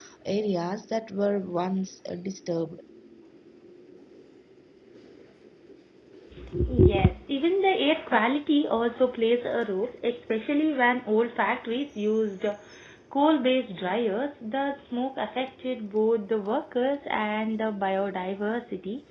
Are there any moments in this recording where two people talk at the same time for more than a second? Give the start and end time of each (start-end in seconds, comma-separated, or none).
none